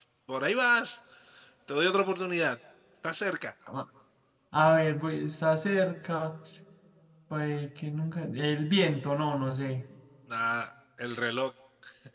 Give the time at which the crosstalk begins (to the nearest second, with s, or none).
none